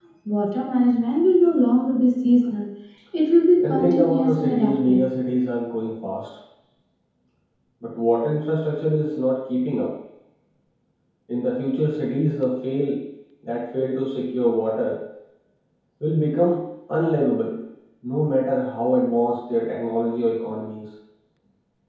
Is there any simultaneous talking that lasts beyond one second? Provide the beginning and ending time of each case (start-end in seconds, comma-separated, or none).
3.6-5.0